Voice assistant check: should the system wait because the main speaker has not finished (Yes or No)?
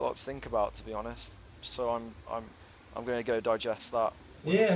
No